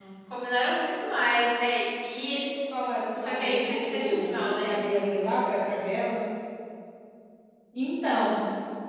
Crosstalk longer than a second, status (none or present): present